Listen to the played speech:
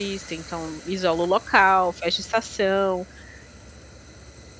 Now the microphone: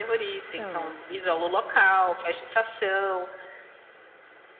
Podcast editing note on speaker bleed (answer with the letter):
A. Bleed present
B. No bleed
A